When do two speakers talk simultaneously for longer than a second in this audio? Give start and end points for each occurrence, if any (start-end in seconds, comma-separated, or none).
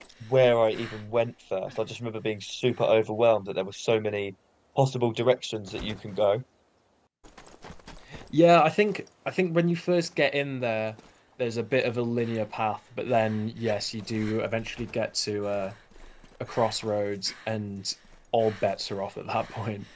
none